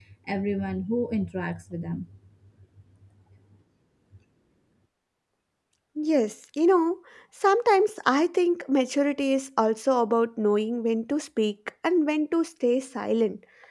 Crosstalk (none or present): none